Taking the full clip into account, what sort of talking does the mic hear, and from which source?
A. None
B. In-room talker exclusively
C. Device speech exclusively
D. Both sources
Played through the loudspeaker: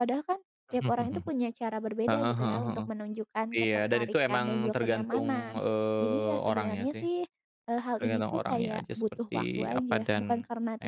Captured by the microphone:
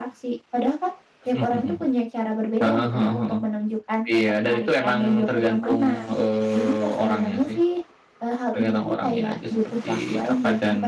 C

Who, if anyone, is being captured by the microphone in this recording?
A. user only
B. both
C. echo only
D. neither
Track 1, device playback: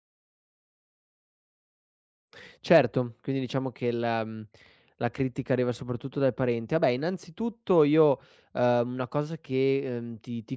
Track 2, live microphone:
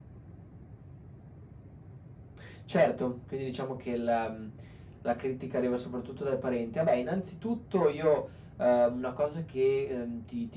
C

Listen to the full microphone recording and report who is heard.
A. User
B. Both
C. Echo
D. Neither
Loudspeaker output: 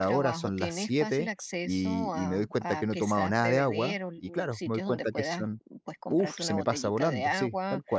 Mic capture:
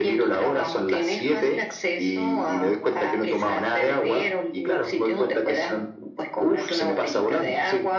C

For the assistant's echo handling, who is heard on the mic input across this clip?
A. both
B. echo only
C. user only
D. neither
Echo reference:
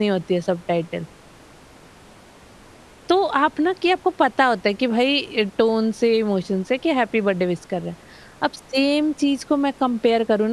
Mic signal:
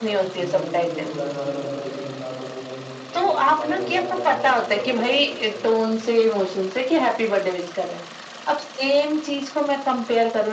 A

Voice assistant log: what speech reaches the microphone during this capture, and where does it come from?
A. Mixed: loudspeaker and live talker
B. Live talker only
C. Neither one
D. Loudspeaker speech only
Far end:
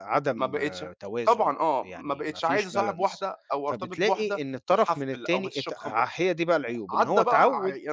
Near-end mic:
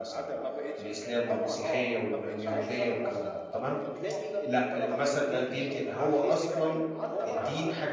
A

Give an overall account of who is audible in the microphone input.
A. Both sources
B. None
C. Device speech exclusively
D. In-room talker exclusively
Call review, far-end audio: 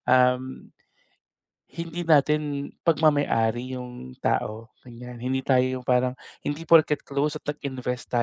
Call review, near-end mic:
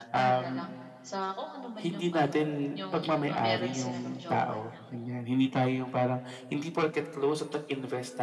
A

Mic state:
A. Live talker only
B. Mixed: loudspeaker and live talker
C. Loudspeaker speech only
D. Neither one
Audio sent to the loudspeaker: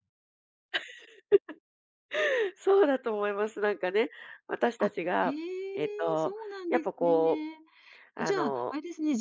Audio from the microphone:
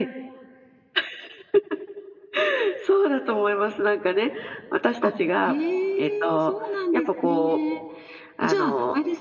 C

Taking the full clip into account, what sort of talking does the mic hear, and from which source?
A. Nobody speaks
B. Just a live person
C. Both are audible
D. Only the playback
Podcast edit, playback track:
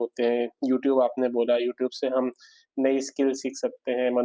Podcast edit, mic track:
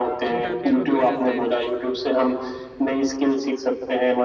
C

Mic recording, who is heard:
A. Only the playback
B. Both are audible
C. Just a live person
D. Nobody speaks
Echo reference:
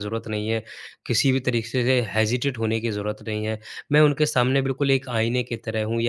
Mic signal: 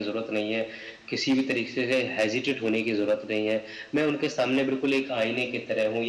A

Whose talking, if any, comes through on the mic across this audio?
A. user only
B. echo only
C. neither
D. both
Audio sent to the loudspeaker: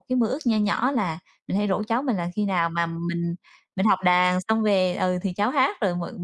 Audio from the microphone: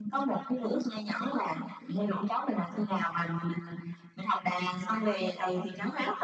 B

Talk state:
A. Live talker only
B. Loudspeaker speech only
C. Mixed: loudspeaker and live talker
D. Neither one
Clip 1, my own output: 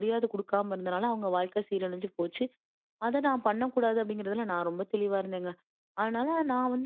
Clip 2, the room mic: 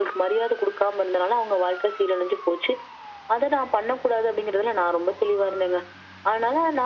B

